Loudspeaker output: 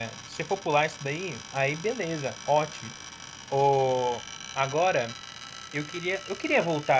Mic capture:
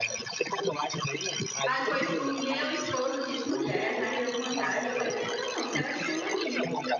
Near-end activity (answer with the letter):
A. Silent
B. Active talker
B